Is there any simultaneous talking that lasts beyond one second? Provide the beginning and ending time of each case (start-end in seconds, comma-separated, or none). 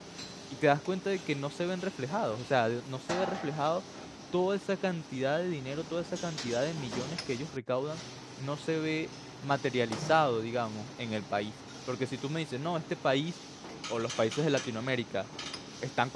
none